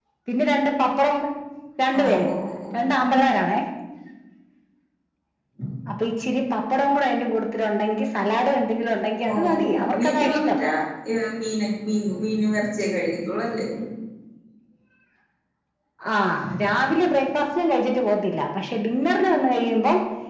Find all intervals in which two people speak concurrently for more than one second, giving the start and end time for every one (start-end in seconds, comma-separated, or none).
9.3-10.6